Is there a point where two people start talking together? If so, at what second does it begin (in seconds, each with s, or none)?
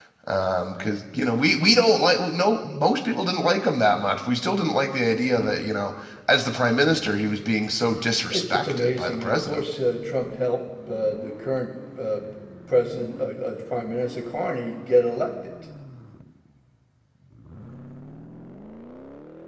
8.3 s